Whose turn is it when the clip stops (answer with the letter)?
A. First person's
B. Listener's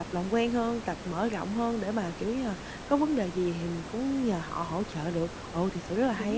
B